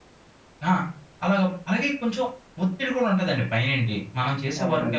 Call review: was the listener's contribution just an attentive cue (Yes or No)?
Yes